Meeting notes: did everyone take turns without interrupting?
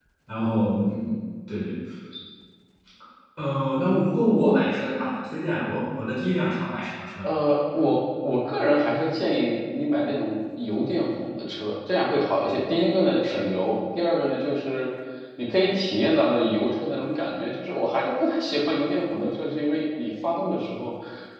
Yes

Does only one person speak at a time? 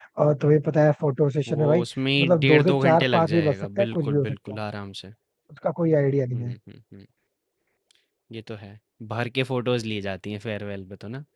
No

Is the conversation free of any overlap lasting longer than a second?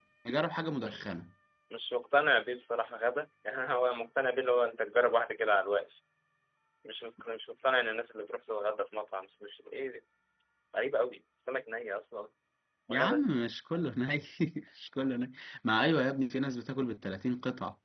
Yes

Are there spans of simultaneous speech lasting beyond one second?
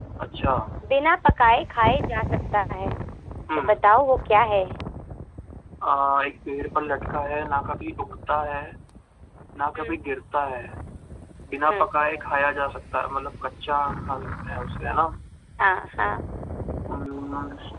No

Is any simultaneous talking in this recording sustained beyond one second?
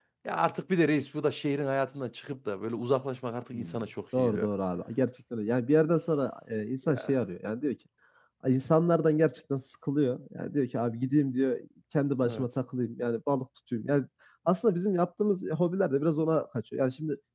No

